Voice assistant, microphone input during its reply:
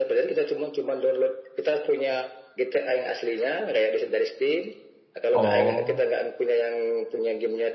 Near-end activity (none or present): present